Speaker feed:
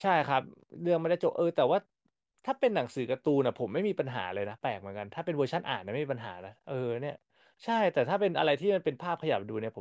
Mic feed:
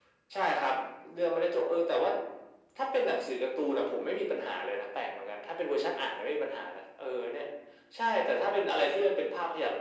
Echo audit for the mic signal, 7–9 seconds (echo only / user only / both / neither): echo only